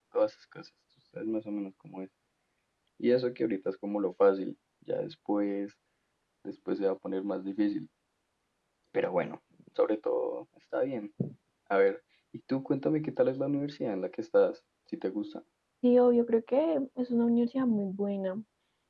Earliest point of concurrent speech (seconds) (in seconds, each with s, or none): none